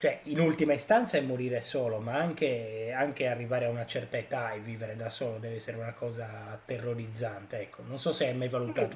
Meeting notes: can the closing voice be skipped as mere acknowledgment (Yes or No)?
No